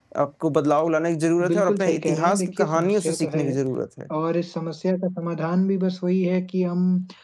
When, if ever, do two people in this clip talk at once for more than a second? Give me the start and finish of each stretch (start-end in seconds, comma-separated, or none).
1.5-3.6